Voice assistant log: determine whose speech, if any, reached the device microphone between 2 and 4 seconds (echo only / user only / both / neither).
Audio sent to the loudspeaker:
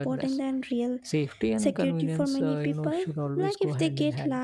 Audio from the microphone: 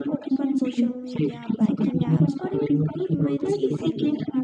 both